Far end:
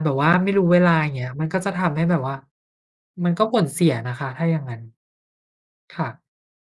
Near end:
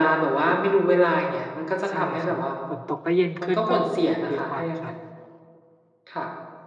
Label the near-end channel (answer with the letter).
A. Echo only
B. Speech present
B